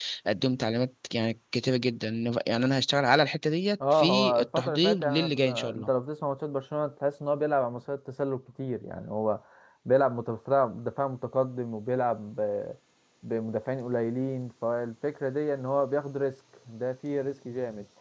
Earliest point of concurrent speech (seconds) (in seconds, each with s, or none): 3.8 s